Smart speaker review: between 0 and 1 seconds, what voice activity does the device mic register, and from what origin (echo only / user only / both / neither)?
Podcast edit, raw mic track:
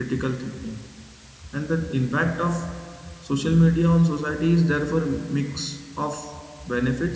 user only